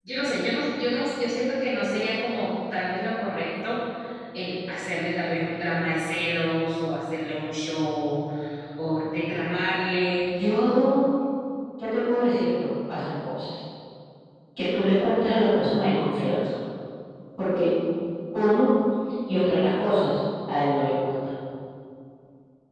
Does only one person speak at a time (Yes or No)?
Yes